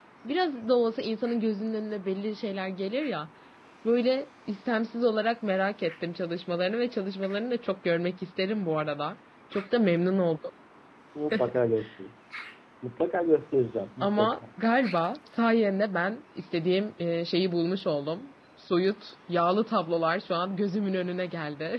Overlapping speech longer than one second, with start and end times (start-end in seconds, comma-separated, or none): none